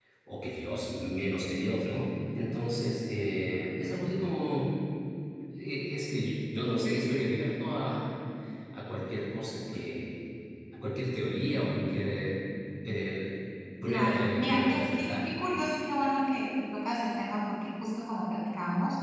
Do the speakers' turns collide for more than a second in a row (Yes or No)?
Yes